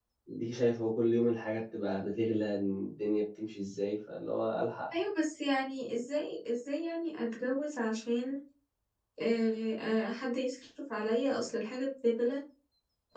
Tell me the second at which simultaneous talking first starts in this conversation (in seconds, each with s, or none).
none